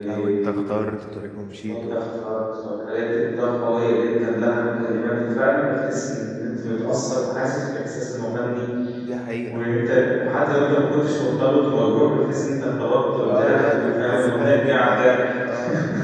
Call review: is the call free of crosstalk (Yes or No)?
No